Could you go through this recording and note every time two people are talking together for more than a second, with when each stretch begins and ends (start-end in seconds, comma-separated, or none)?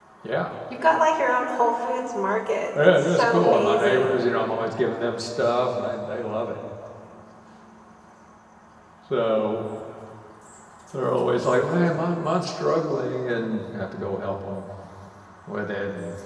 3.0-4.2